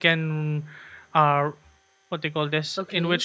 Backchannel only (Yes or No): No